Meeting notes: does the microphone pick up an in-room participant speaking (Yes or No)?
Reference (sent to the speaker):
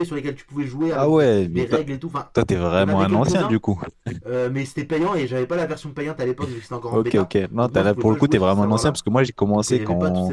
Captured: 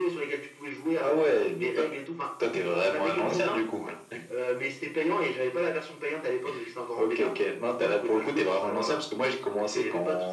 No